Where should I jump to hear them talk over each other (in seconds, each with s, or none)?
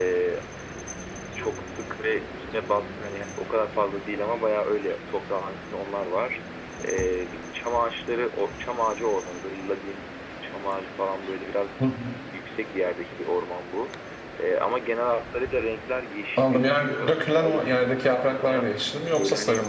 16.4 s